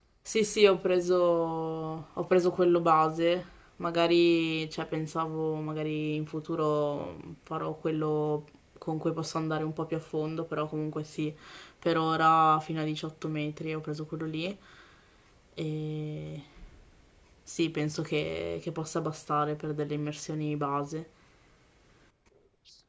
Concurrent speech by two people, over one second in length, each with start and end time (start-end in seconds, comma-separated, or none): none